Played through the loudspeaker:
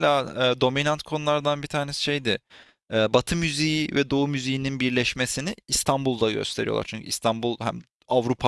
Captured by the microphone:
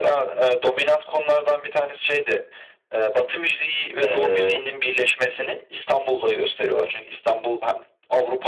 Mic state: both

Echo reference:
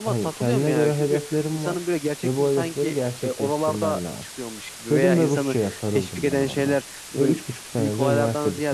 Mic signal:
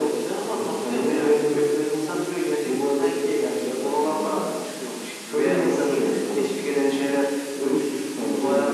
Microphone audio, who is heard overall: echo only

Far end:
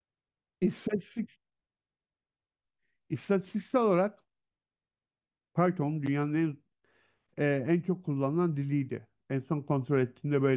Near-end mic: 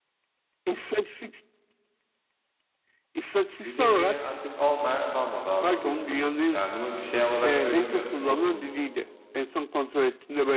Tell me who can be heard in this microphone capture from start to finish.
both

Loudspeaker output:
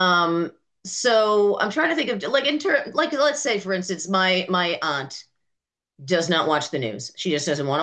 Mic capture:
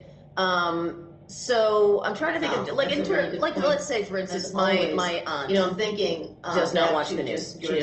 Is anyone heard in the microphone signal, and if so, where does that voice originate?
both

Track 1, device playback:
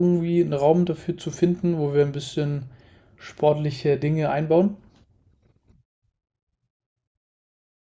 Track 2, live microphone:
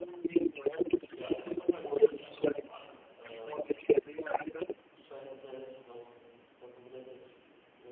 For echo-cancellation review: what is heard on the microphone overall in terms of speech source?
both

